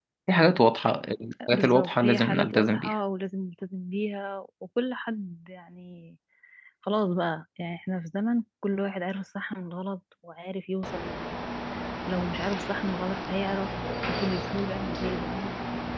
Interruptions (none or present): present